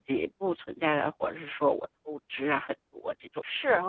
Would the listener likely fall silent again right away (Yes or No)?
No